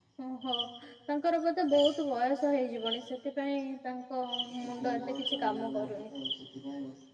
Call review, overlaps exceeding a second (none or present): present